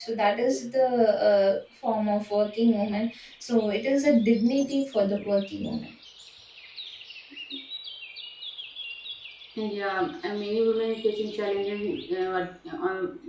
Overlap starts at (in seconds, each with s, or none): none